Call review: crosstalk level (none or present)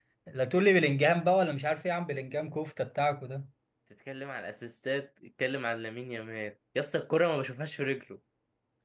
none